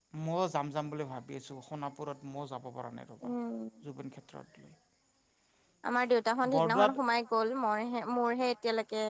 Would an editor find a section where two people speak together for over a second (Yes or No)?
No